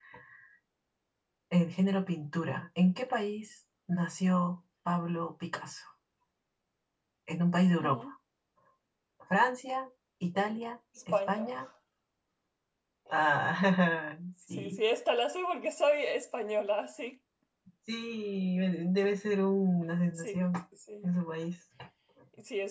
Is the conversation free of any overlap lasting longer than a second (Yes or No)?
Yes